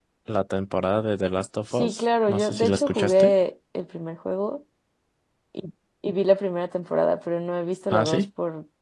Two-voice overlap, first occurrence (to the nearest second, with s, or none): 2 s